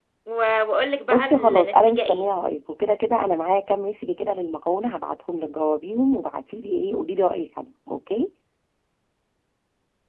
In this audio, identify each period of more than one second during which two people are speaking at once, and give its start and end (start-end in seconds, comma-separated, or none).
1.1-2.3